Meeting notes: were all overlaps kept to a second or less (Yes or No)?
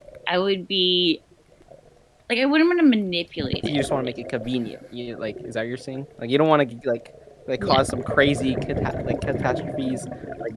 Yes